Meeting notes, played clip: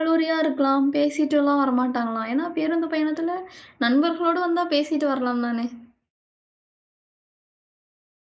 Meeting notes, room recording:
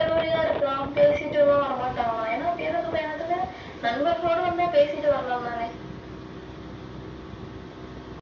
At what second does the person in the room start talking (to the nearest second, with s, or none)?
none